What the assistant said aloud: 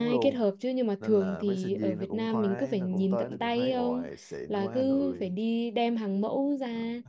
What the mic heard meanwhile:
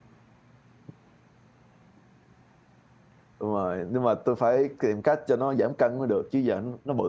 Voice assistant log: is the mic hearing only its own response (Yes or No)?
No